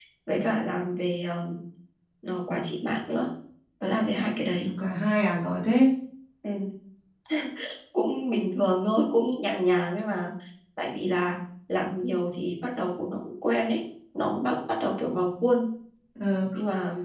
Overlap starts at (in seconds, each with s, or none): none